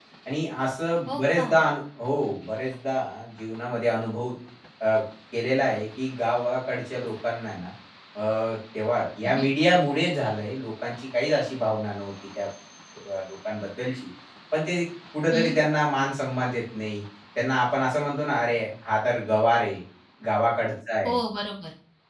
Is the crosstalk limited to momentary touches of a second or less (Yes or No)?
Yes